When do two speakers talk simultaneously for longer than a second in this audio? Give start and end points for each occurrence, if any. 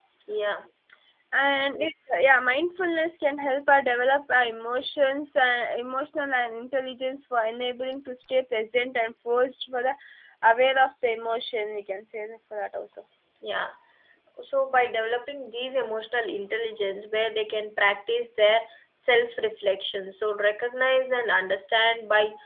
none

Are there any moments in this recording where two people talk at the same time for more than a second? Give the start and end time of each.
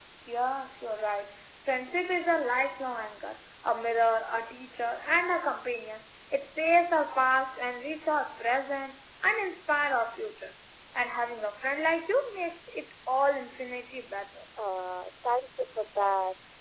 none

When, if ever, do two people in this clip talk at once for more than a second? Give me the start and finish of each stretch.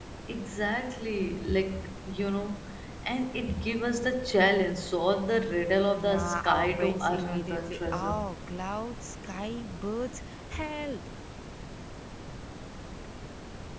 6.0-8.2

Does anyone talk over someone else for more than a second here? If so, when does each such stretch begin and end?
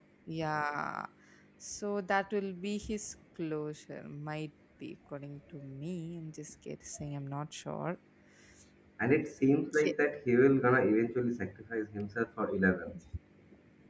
none

